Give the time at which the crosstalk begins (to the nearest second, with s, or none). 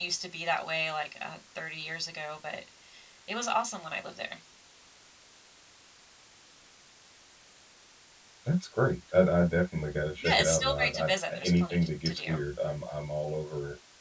10 s